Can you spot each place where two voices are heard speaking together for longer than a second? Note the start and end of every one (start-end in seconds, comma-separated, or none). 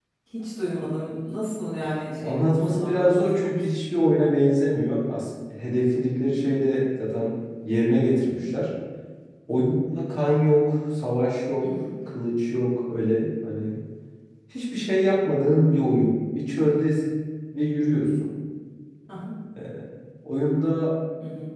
2.2-3.6